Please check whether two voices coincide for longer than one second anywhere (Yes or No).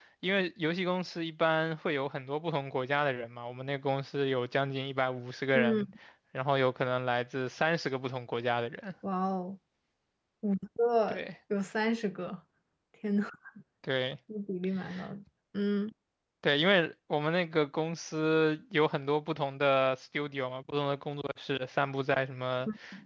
No